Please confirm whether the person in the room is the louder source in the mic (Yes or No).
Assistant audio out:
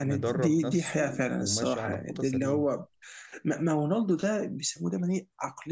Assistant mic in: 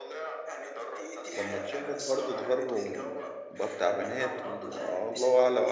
Yes